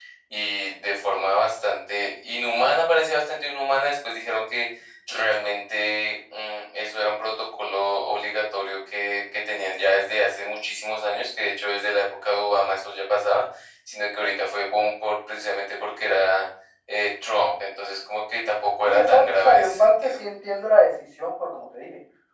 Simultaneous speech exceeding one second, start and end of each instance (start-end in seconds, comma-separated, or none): 18.9-20.2